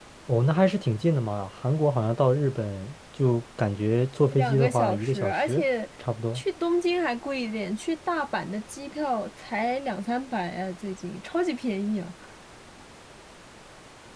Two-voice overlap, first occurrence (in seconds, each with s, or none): 4.3 s